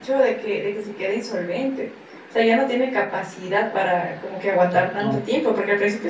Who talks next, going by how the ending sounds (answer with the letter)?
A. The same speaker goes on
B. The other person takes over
A